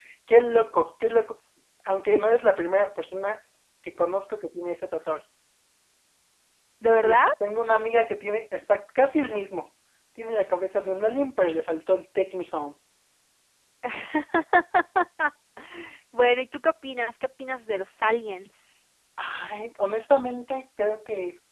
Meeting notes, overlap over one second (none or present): none